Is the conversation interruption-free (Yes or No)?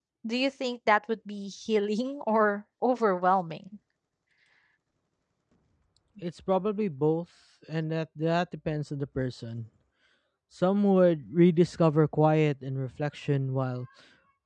Yes